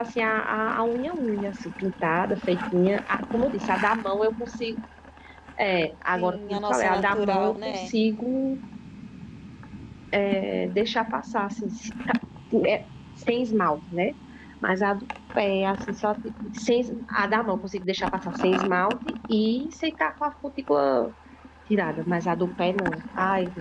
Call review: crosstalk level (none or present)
present